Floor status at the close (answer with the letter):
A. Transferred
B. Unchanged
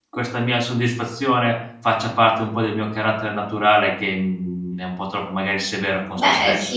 A